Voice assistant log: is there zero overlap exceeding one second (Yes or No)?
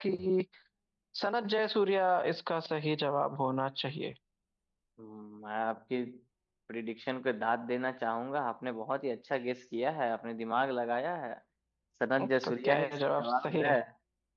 No